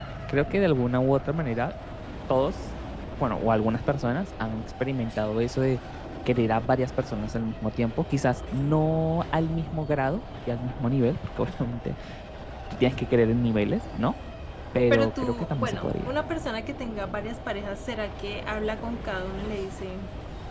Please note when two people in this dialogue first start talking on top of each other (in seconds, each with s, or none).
14.9 s